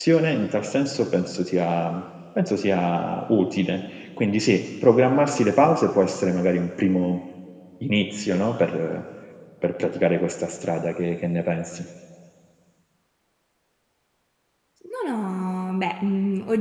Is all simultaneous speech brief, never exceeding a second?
Yes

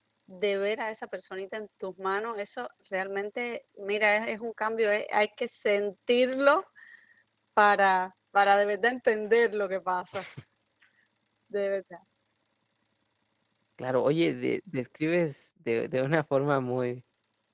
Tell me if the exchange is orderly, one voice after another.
Yes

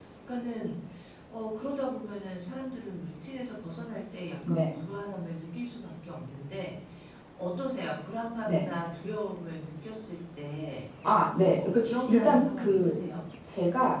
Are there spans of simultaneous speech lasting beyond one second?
Yes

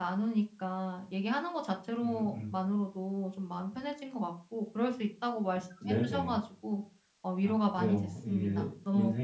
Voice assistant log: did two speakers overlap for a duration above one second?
Yes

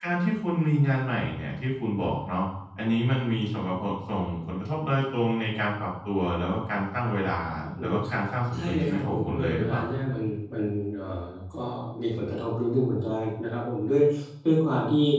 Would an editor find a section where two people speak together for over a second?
Yes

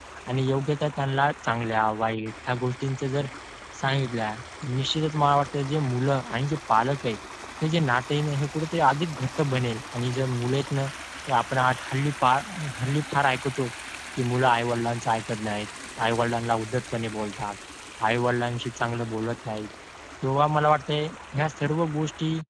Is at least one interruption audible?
No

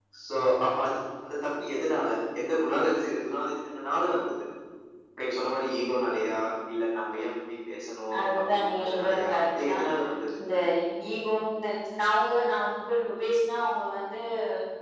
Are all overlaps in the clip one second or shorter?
No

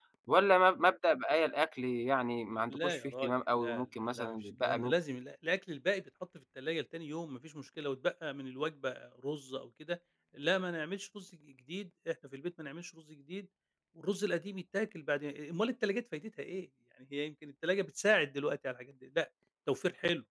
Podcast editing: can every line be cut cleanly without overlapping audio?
No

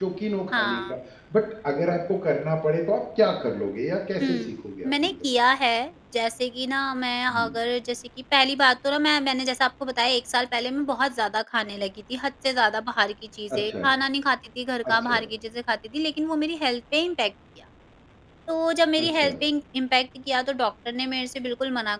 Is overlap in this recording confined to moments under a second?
Yes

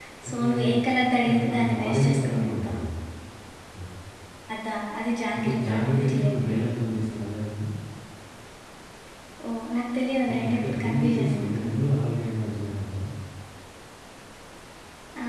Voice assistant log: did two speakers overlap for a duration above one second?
Yes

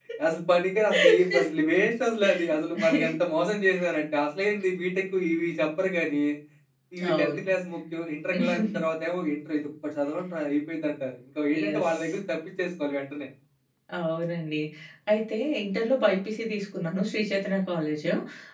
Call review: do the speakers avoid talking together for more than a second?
Yes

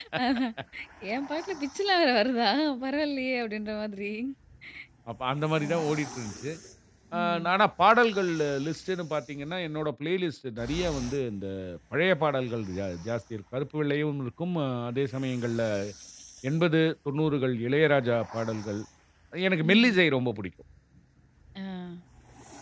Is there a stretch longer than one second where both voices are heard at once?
No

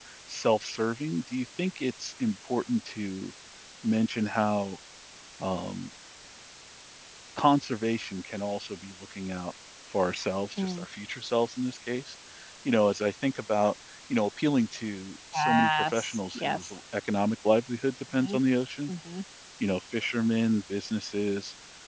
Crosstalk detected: Yes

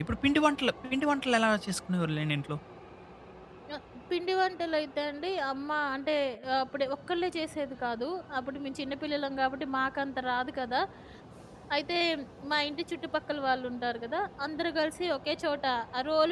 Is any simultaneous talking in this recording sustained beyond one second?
No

